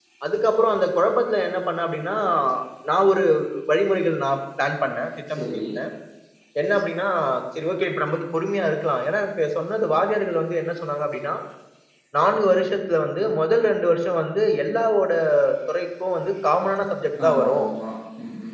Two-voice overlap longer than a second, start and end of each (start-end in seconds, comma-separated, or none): none